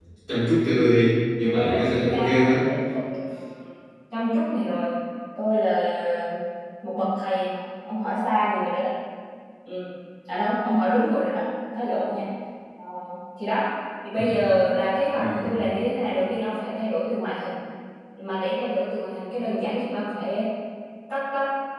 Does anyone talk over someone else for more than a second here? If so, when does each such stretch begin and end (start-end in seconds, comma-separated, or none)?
1.4-2.7